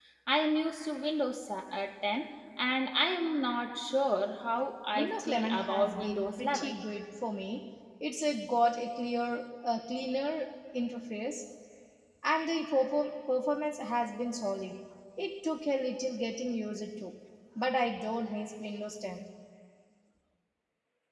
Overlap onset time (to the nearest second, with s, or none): 5 s